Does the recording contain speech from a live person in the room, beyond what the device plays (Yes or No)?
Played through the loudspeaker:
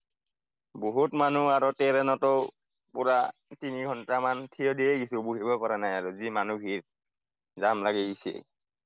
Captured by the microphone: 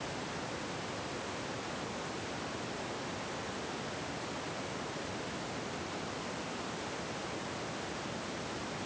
No